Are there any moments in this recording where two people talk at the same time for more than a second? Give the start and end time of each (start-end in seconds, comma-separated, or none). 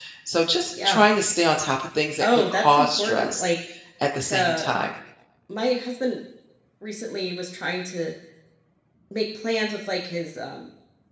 2.2-3.5